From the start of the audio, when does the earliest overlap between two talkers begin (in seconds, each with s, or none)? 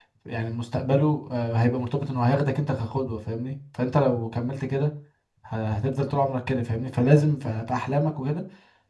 none